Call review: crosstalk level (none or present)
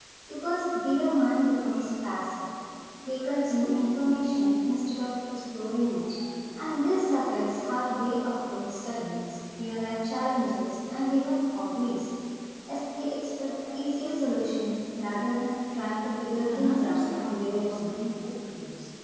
present